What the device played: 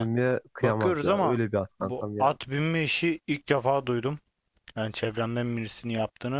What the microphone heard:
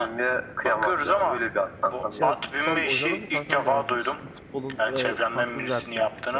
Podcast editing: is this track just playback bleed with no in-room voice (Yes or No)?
No